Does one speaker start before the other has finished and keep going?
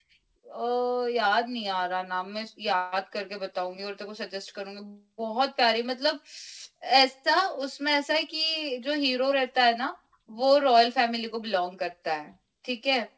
No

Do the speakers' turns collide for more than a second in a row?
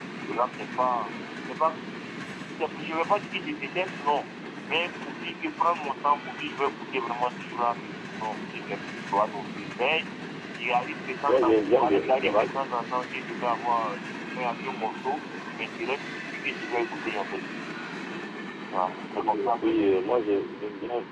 Yes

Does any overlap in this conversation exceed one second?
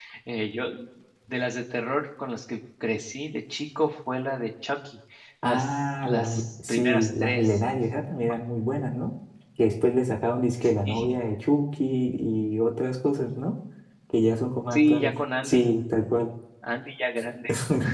Yes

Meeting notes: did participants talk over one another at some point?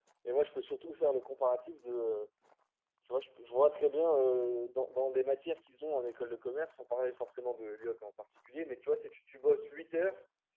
No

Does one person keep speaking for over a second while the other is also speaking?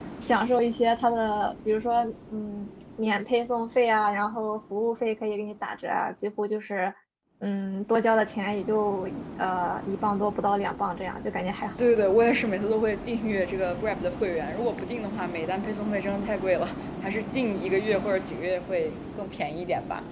No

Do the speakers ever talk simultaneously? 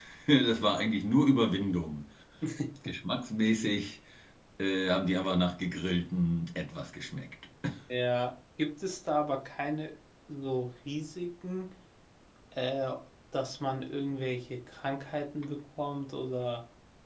No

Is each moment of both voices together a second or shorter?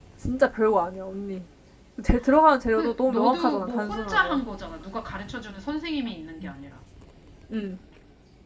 No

